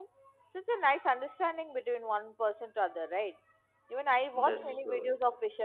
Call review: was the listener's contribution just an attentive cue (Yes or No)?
Yes